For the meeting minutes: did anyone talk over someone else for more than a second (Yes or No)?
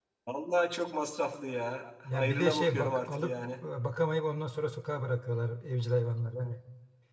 Yes